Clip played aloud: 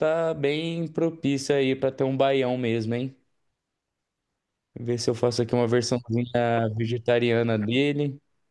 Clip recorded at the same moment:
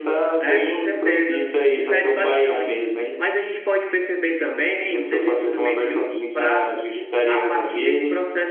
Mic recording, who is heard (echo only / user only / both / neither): both